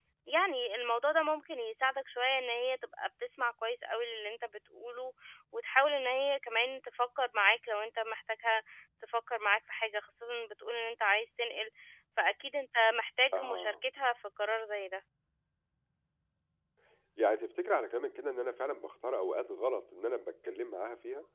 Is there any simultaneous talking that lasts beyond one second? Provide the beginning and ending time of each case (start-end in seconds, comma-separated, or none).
none